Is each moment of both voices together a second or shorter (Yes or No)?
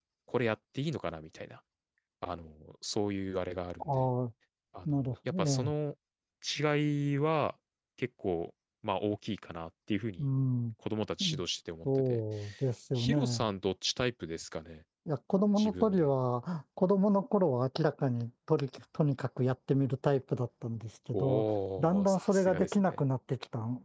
No